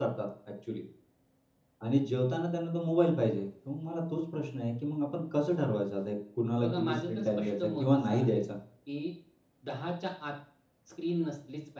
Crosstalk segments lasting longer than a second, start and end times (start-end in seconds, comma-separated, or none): 6.6-8.4